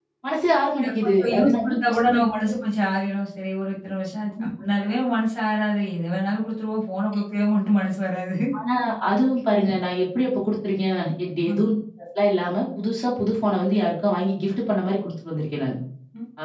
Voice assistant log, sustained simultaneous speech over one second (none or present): present